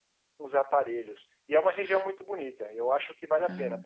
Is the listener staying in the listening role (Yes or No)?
Yes